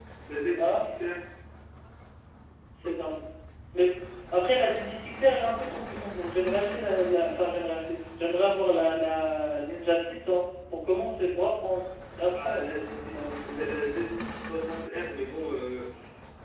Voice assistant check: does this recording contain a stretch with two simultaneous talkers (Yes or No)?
Yes